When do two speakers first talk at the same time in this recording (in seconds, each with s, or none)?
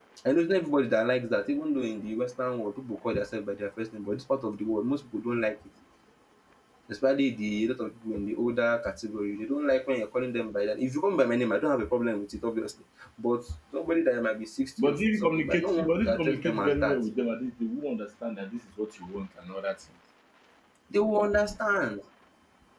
14.8 s